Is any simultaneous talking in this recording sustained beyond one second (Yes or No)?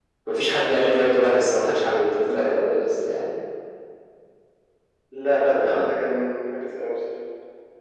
No